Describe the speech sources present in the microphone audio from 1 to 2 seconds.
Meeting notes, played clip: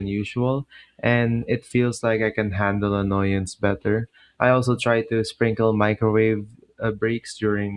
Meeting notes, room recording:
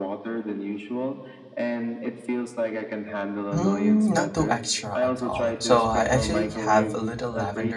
echo only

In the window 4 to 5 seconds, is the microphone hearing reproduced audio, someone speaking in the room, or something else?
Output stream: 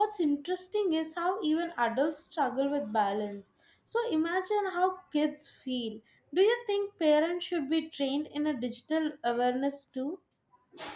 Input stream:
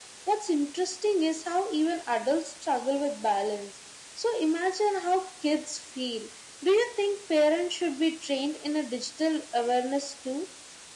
echo only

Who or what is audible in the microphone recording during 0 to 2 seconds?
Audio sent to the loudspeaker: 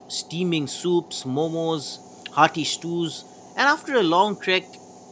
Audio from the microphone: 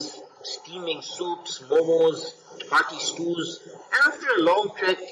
echo only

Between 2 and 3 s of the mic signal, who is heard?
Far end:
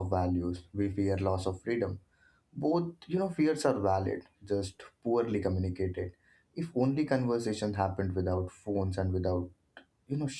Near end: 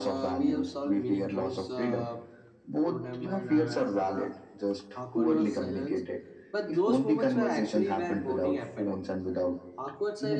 both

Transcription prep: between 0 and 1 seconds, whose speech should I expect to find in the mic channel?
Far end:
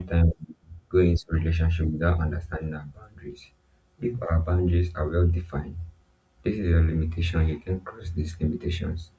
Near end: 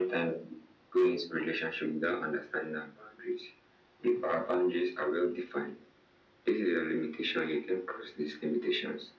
echo only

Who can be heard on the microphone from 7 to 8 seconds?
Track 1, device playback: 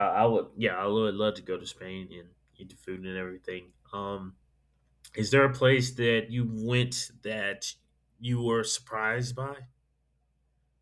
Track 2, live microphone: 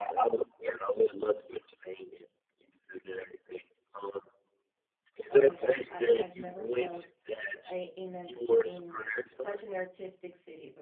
both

